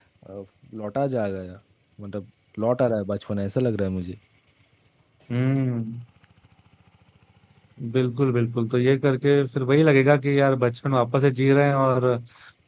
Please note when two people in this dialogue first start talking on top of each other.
none

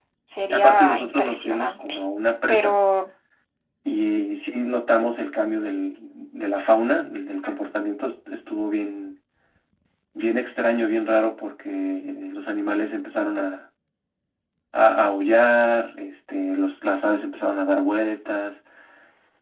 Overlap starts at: 0.5 s

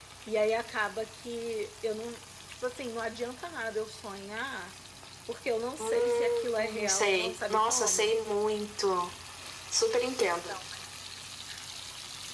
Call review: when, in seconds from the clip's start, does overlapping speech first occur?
5.8 s

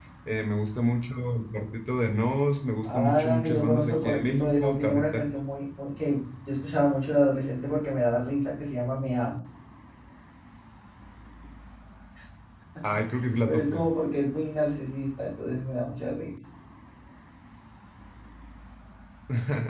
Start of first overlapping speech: 2.9 s

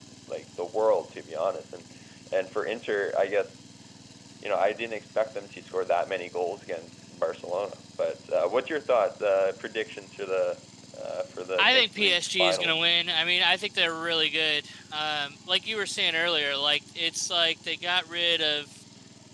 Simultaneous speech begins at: 11.6 s

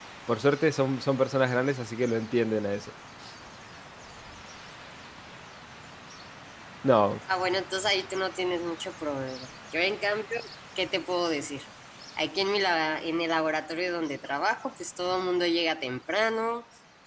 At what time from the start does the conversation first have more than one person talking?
none

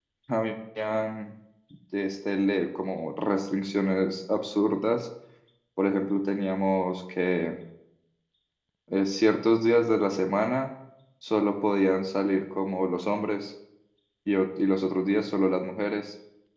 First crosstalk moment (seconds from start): none

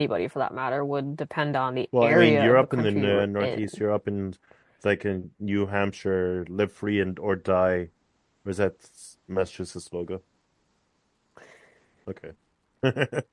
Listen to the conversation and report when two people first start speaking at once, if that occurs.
1.9 s

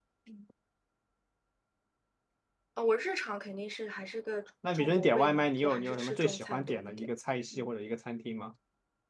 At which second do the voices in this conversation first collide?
4.6 s

